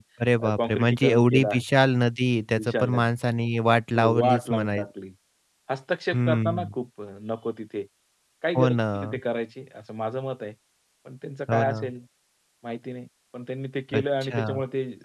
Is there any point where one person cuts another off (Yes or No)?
Yes